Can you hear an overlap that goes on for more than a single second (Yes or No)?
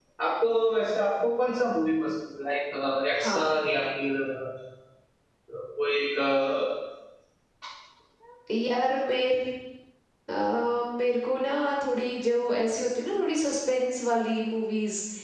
No